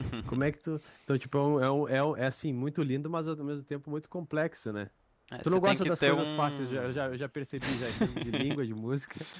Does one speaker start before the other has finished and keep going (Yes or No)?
Yes